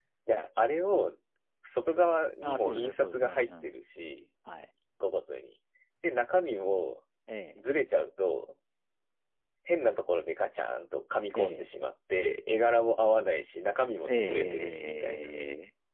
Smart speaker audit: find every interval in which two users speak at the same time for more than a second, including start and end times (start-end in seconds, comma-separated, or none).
2.4-3.7, 14.0-15.3